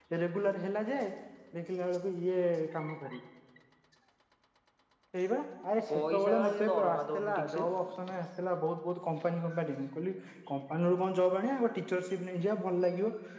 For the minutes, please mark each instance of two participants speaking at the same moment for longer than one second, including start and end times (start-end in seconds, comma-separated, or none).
5.9-7.7